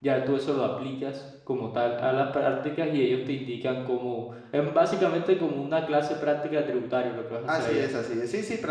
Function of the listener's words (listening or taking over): taking over